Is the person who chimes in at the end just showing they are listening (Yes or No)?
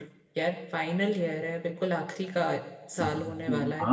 No